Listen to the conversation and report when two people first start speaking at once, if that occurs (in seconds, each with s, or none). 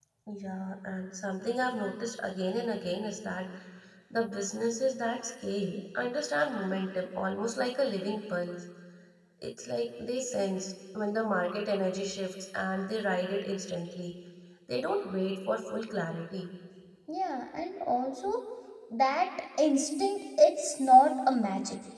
none